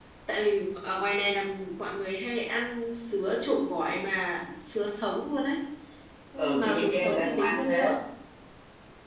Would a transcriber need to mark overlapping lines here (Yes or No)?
Yes